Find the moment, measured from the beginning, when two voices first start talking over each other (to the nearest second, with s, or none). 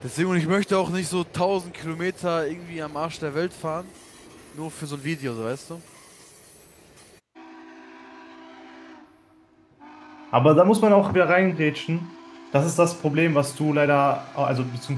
none